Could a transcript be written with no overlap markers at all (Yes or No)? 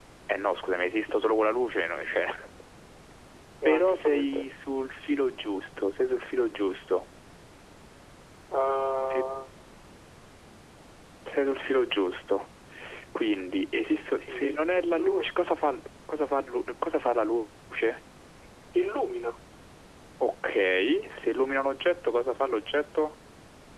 No